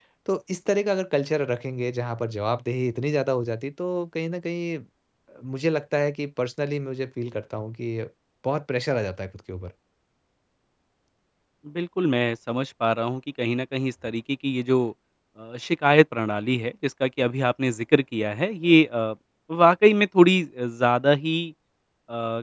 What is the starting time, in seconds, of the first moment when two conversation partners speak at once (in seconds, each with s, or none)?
none